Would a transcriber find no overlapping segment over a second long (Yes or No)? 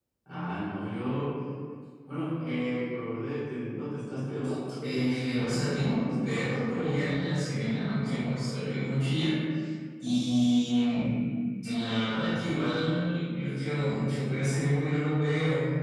No